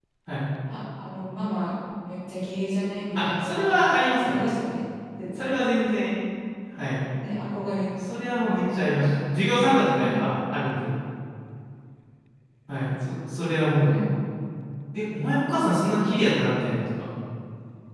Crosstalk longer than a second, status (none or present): present